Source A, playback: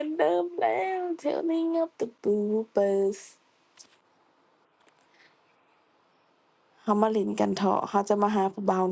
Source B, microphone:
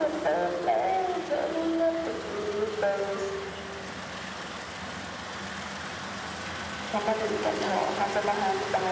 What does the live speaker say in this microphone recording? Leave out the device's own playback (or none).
none